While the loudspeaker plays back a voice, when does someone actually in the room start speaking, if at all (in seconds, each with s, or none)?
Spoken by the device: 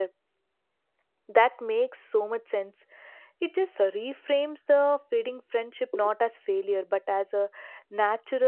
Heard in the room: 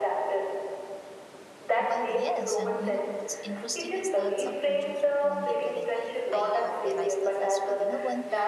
1.8 s